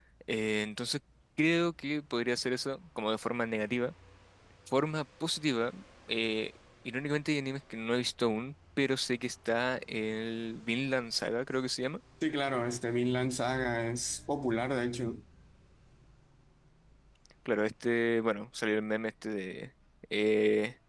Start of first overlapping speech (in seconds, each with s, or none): none